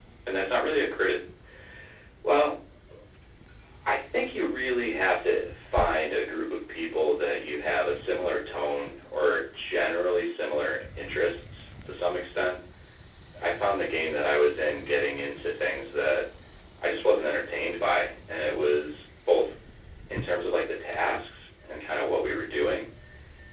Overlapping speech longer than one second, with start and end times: none

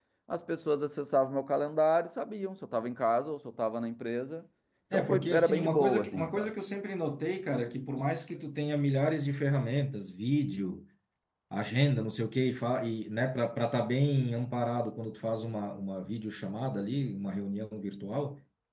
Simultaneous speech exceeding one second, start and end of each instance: 4.9-6.5

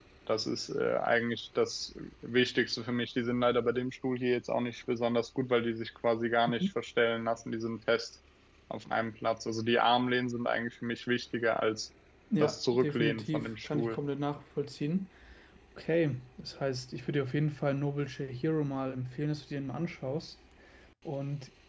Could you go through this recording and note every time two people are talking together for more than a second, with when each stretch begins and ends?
12.4-14.0

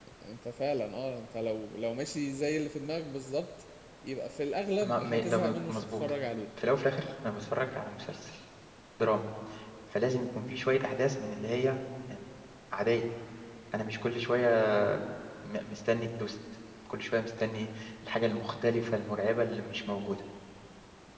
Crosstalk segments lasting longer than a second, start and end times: 4.8-6.0

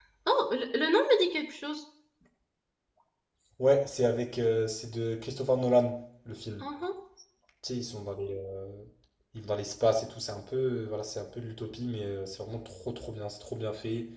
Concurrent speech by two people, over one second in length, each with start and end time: none

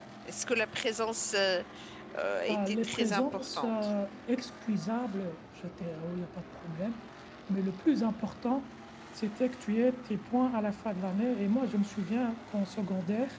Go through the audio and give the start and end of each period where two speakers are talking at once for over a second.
2.5-3.9

